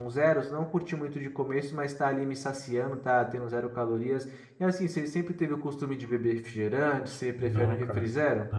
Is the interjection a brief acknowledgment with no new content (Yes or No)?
No